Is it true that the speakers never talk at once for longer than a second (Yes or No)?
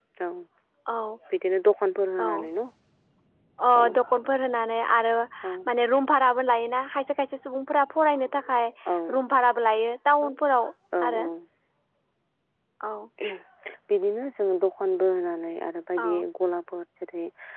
Yes